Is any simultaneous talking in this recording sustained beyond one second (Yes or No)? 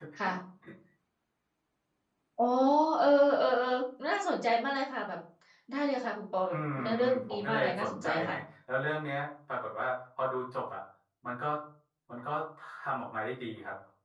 Yes